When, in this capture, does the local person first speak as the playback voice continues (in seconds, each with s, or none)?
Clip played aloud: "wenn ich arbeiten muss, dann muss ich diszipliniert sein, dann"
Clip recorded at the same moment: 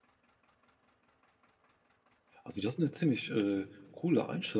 2.4 s